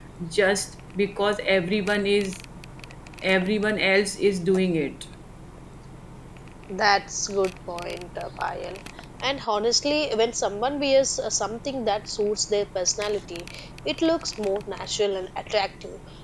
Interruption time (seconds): none

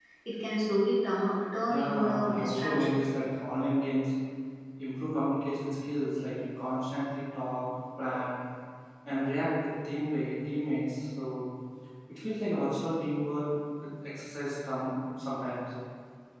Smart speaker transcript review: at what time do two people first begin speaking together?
1.7 s

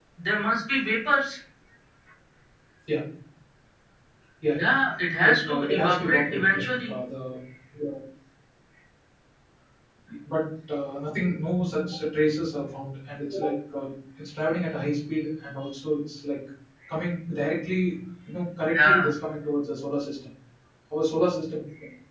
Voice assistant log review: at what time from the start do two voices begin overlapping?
5.2 s

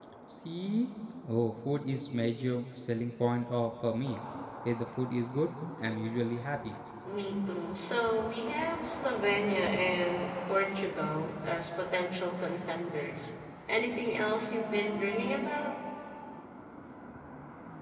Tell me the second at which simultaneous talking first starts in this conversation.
none

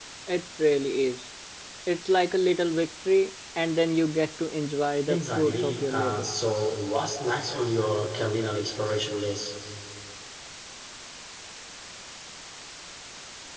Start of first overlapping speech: 5.1 s

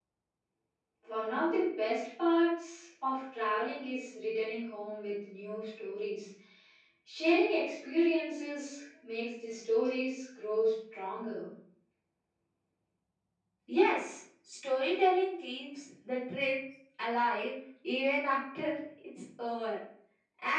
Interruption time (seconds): none

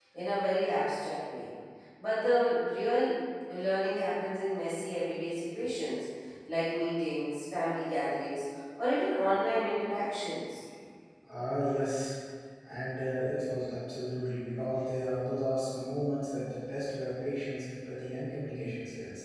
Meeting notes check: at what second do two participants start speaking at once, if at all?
none

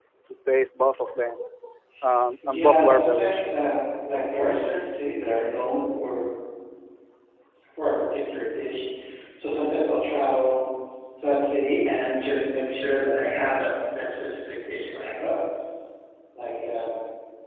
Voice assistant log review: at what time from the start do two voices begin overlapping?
2.5 s

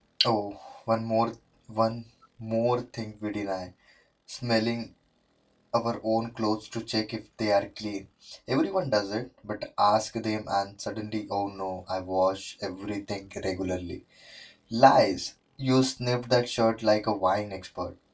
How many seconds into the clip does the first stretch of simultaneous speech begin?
none

